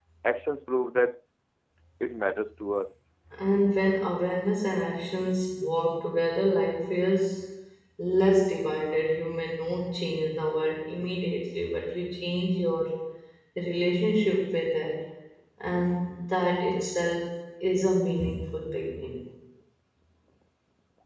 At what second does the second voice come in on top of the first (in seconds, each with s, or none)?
none